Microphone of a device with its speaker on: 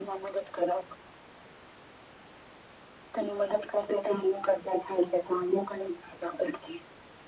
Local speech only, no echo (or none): none